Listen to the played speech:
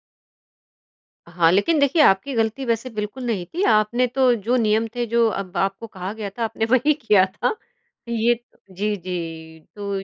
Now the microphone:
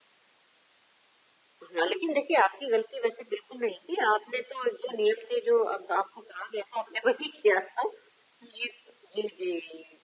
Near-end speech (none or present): none